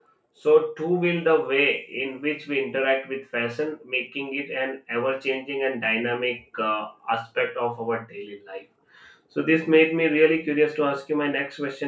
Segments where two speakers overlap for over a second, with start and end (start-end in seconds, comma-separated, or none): none